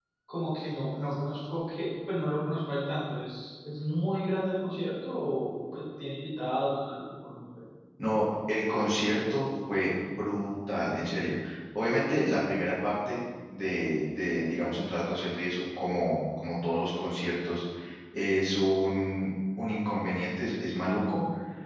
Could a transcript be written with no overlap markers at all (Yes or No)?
Yes